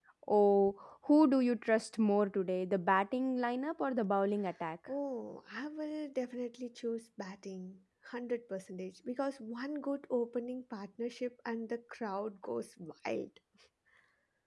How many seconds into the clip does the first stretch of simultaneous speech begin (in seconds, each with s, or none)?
none